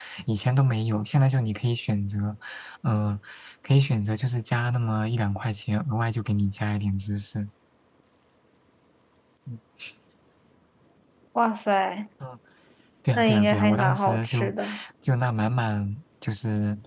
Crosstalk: present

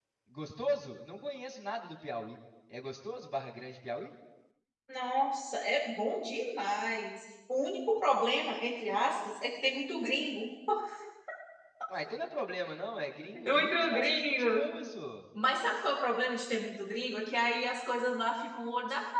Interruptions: present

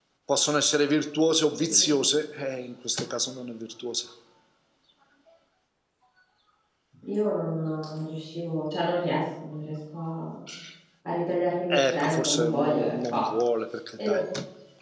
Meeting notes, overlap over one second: present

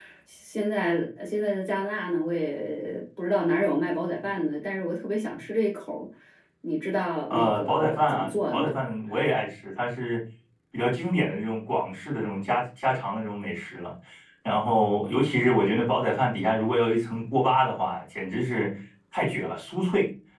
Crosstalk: present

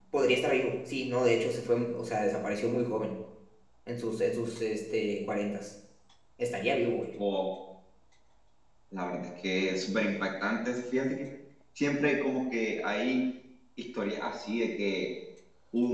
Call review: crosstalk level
none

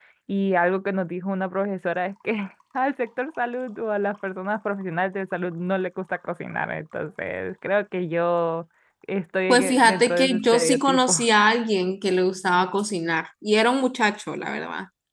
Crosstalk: present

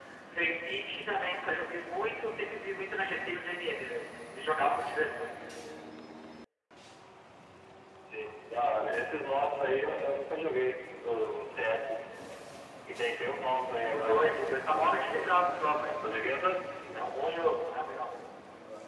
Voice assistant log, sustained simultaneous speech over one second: present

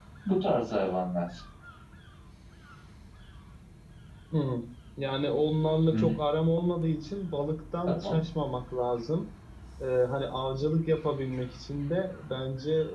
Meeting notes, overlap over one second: none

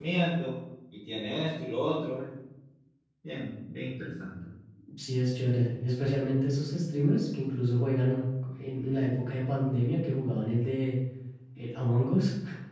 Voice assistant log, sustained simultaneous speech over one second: none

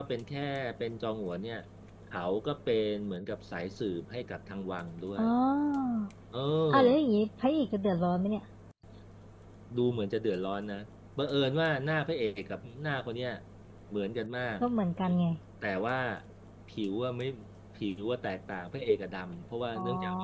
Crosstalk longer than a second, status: none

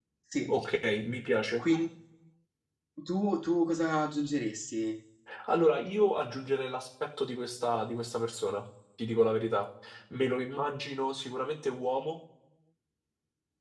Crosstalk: none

